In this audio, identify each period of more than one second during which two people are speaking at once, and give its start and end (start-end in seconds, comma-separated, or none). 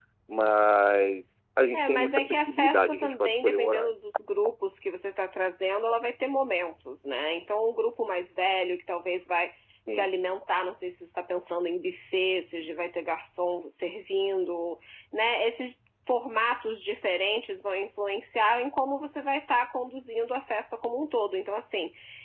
1.7-3.9